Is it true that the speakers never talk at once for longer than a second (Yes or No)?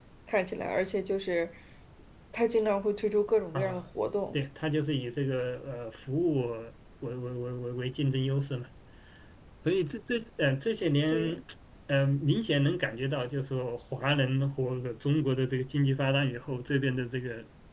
Yes